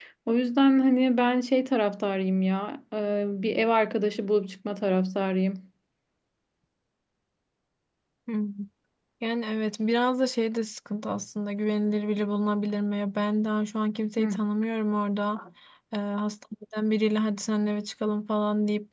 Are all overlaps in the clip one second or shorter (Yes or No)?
Yes